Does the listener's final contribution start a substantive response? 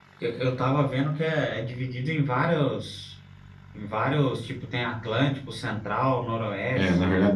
Yes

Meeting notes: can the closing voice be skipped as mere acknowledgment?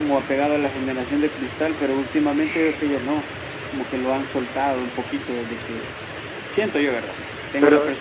Yes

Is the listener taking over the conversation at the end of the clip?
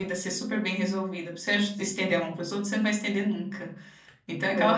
No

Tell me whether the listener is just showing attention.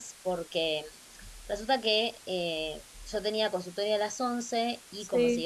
Yes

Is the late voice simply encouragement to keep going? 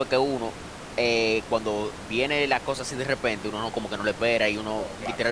Yes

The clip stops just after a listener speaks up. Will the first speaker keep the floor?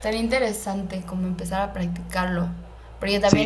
Yes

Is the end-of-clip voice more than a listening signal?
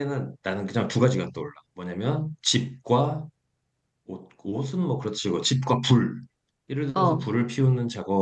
No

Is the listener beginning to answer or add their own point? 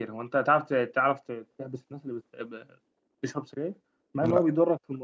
No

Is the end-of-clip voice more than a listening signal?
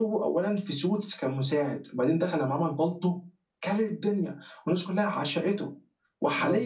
No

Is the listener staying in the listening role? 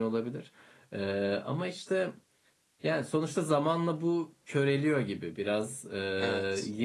Yes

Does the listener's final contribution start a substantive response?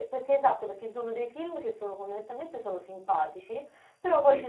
No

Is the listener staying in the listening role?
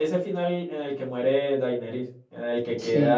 Yes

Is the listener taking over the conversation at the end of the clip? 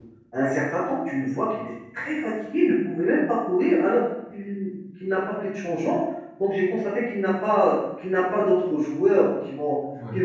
No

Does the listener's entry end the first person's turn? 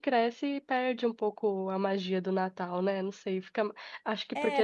Yes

